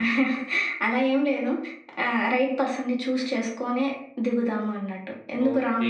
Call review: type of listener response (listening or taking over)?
taking over